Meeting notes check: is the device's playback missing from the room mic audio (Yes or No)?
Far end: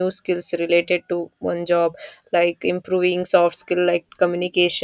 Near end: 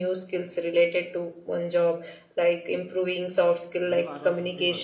No